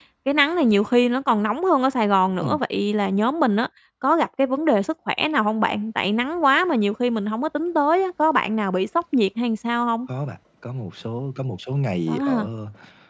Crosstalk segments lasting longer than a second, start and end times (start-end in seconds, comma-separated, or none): none